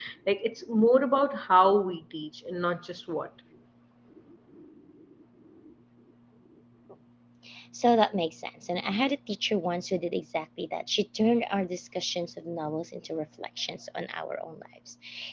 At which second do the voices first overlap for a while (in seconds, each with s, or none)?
none